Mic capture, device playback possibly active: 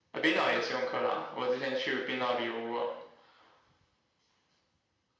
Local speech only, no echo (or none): none